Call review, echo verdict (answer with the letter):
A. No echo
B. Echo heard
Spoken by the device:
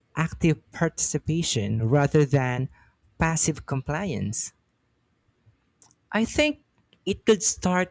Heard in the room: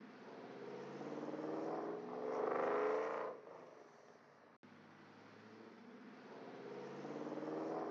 A